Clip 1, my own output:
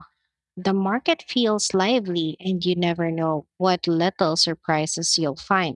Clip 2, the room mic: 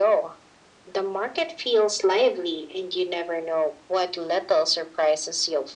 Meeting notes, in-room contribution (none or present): none